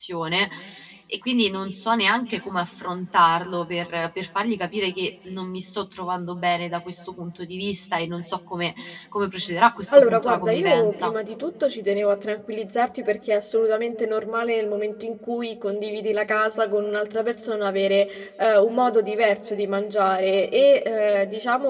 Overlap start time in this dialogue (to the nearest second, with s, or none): 10 s